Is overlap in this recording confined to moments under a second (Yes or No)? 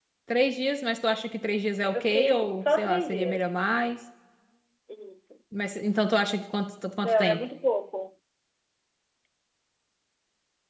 No